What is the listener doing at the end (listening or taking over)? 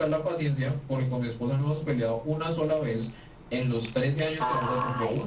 taking over